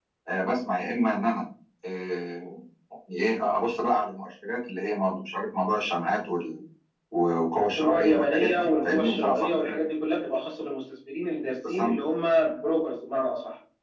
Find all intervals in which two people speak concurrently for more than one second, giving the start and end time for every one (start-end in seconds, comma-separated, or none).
7.8-9.8